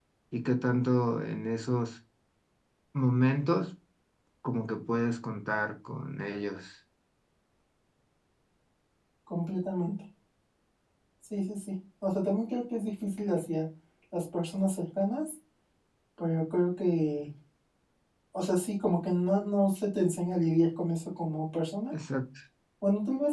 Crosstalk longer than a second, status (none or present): none